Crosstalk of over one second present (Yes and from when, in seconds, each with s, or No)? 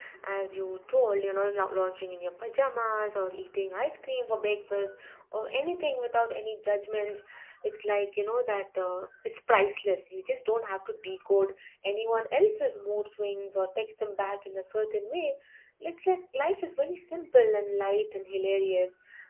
No